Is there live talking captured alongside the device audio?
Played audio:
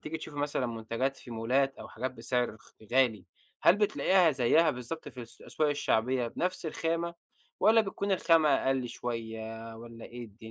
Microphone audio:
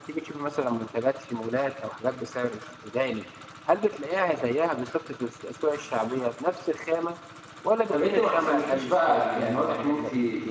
Yes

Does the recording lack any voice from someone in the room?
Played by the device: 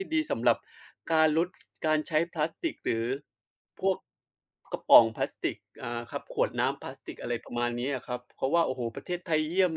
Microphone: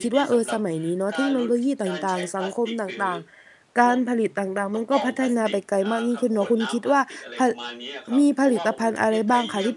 No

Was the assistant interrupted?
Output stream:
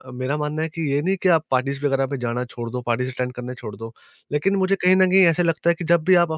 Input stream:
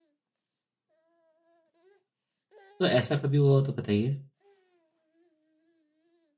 Yes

